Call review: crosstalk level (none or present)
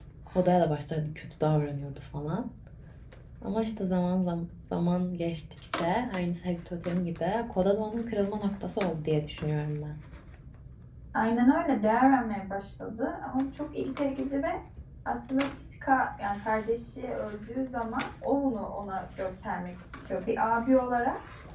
none